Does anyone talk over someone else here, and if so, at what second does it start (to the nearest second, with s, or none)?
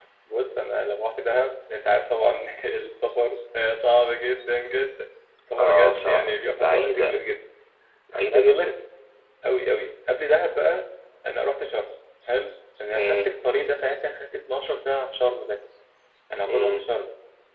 6 s